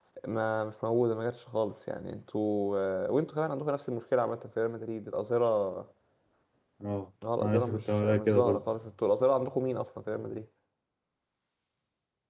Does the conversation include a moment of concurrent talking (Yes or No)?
Yes